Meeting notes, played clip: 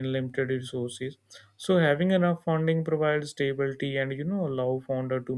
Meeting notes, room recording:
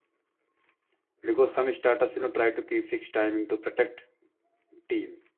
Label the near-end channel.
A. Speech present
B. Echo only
A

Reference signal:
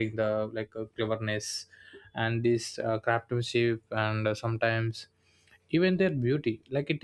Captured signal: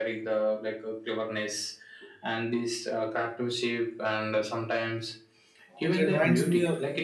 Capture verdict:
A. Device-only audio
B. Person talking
B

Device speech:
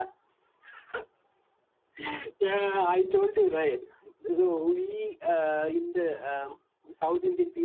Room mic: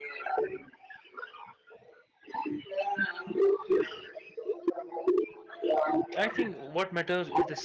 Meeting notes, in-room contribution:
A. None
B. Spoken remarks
B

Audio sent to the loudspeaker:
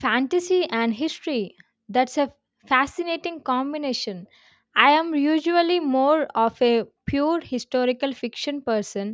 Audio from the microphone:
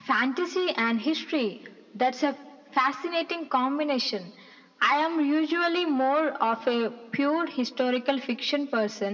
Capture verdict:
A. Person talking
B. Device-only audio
B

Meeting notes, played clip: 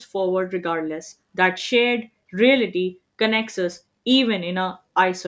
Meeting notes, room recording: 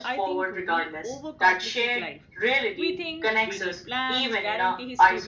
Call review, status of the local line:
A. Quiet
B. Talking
B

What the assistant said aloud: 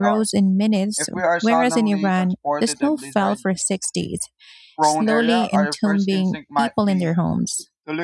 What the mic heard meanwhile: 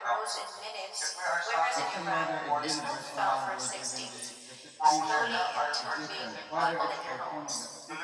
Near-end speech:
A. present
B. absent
A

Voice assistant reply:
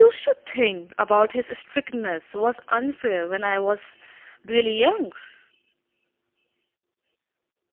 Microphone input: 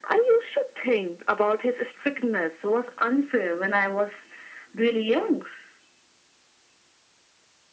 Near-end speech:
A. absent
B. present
A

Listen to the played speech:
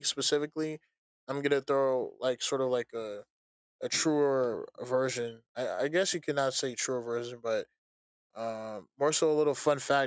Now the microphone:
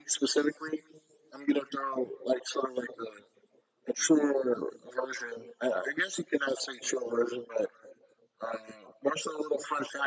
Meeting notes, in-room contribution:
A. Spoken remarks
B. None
B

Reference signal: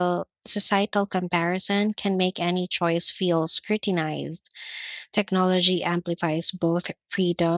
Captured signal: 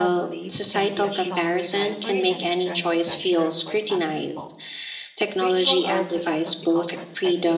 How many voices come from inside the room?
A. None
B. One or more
B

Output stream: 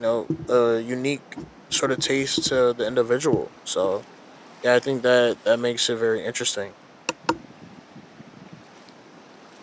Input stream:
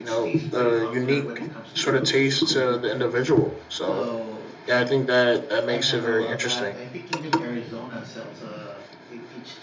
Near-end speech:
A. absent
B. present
B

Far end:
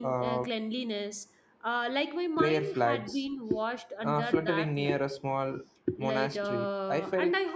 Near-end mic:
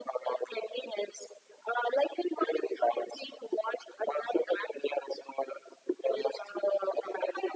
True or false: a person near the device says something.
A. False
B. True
A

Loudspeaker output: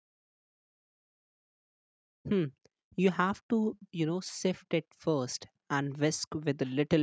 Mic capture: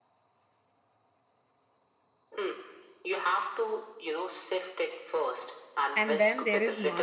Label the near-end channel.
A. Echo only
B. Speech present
B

